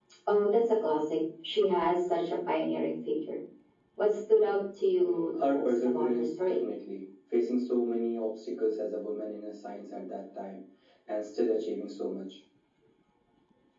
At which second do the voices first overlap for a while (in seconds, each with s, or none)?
5.0 s